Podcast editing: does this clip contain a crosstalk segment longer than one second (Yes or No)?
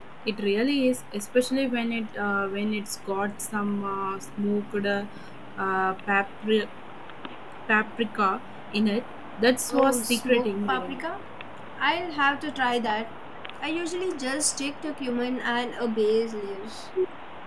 Yes